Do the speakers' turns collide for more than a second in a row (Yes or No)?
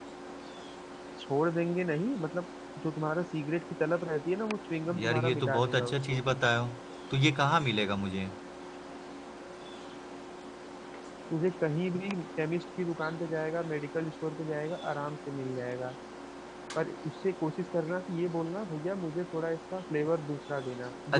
Yes